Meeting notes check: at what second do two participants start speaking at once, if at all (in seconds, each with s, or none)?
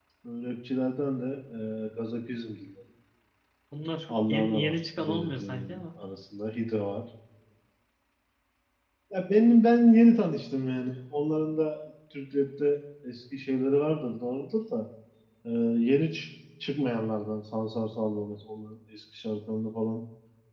4.1 s